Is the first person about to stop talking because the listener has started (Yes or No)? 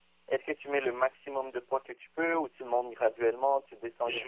Yes